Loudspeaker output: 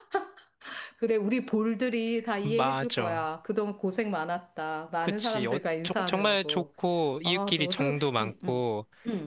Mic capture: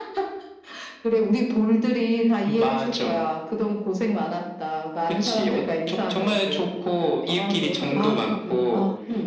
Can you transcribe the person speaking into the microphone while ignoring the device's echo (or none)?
아, 아,